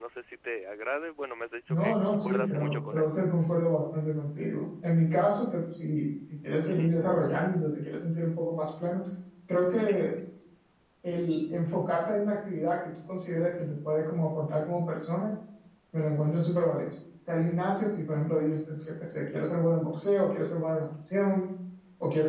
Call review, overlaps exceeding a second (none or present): present